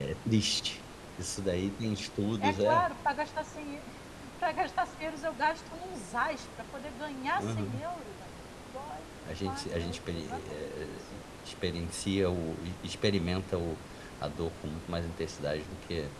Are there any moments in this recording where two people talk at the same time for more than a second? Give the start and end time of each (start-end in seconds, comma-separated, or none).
9.3-11.0